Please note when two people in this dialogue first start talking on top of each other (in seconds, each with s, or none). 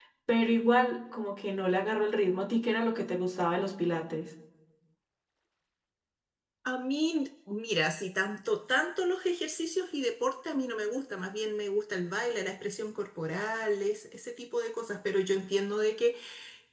none